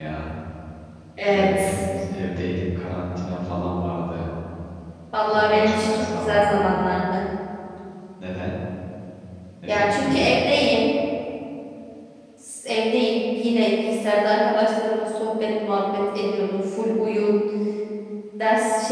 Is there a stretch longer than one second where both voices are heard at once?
Yes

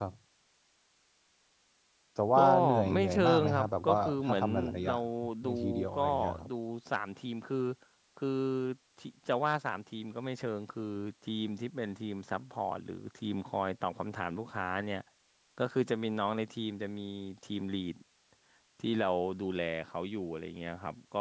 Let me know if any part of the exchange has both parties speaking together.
Yes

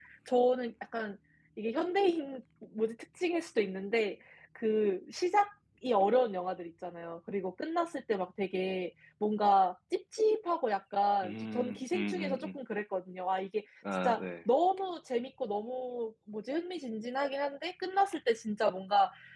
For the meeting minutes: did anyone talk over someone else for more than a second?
Yes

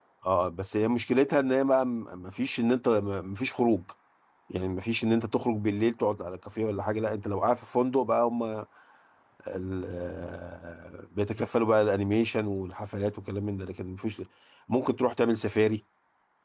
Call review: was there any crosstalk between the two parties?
No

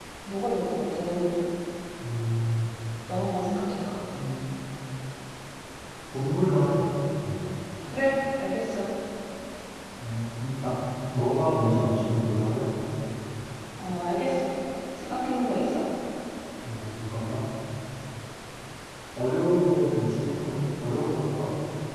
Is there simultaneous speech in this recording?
No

